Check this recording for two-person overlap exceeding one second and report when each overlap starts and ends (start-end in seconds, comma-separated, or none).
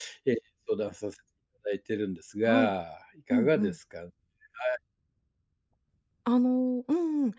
none